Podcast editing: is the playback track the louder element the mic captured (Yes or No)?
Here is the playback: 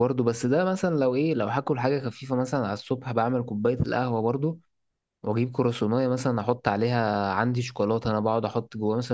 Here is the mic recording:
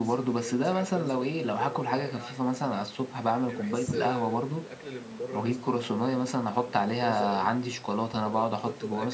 Yes